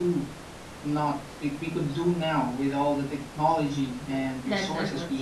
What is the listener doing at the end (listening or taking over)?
taking over